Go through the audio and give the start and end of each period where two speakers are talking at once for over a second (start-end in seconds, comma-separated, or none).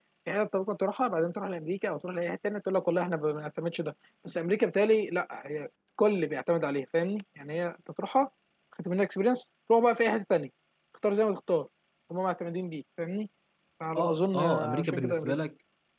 13.9-15.4